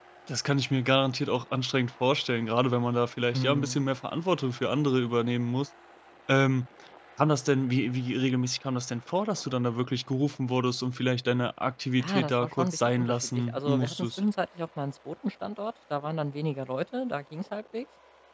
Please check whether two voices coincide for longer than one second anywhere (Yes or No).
Yes